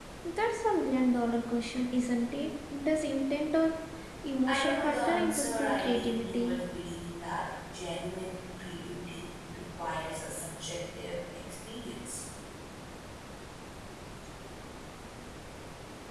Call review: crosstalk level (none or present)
present